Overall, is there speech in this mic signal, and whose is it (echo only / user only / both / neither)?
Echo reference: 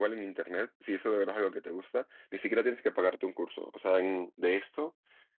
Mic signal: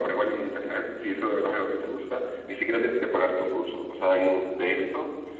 echo only